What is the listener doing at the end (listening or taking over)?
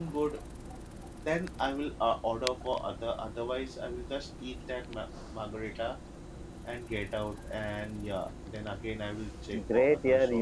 taking over